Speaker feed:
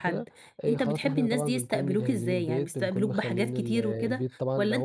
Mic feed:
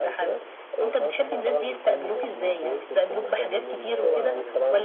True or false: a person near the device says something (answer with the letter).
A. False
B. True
B